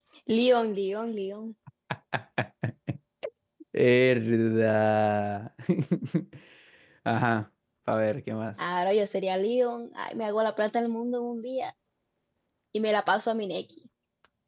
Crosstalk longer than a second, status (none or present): none